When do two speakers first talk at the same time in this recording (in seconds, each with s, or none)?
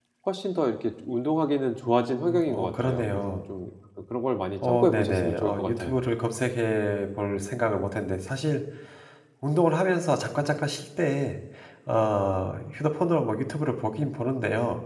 1.9 s